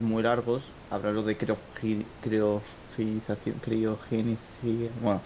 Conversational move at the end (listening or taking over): taking over